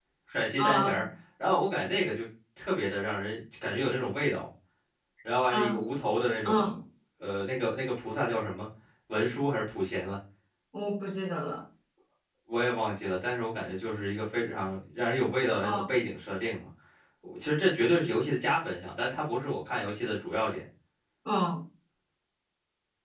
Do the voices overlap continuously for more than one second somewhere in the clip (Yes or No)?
No